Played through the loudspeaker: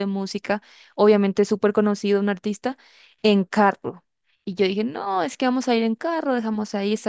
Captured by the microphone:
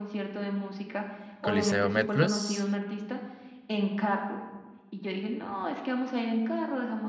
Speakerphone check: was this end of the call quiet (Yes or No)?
No